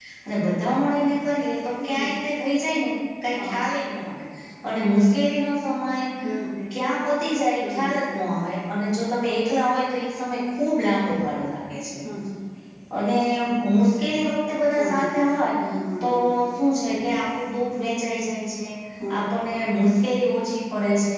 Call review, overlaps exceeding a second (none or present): none